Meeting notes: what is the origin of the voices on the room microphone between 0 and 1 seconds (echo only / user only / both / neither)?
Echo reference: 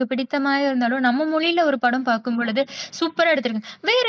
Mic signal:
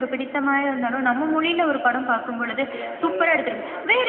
echo only